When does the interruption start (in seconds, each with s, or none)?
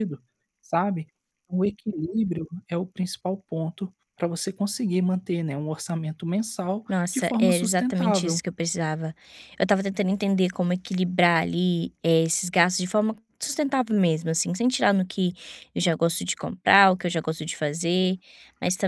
6.9 s